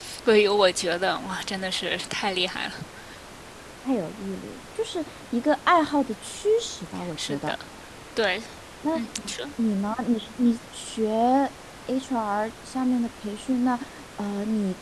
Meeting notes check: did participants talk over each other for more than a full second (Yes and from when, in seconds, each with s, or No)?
No